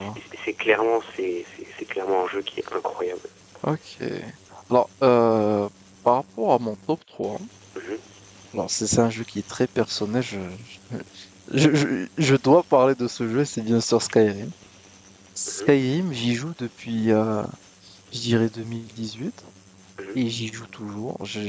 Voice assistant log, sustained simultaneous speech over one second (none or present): none